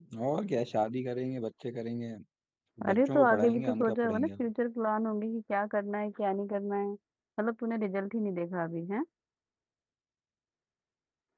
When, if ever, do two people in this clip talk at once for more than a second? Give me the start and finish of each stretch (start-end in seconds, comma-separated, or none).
2.9-4.3